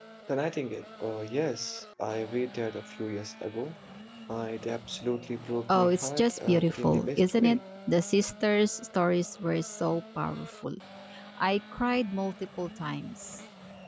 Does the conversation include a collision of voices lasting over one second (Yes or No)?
Yes